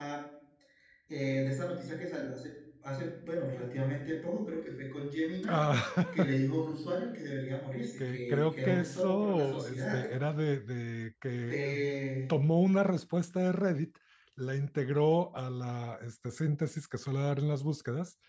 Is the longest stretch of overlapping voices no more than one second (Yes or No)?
No